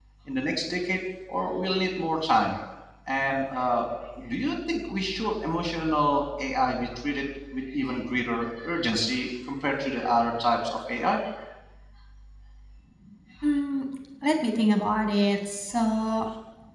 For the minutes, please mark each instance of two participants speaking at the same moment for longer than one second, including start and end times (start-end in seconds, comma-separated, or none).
none